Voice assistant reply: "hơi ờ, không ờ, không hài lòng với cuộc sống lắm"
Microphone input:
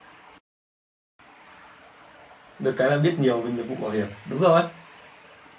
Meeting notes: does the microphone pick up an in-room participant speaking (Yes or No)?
Yes